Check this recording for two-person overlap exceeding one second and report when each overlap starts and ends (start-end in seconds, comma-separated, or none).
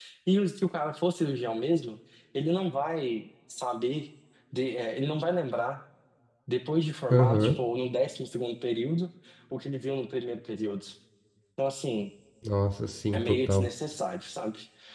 none